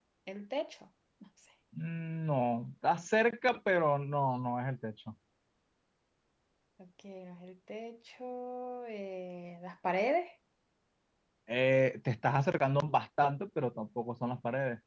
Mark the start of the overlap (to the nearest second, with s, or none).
none